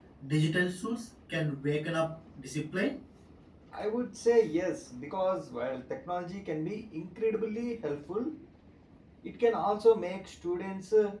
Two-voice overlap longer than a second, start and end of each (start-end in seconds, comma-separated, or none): none